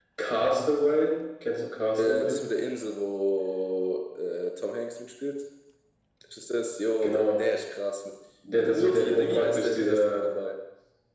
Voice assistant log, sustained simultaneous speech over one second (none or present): present